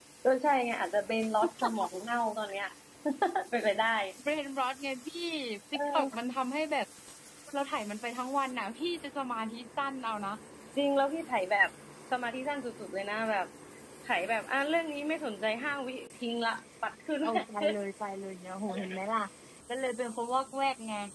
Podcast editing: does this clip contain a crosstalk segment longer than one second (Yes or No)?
No